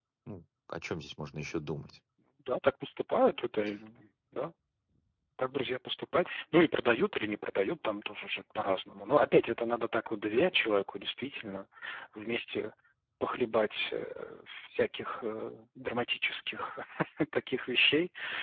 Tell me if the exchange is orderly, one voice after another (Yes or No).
Yes